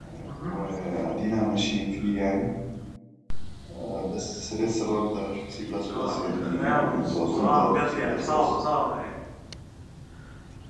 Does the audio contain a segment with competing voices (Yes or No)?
Yes